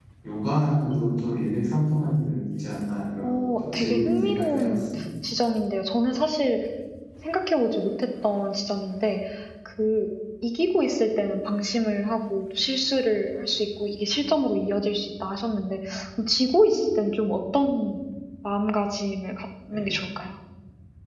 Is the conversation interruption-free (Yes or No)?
No